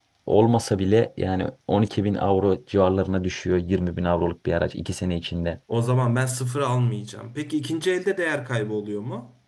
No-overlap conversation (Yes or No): Yes